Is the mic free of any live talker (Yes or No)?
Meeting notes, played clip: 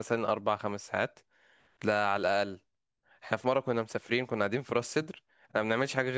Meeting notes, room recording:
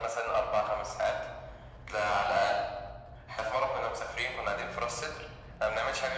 Yes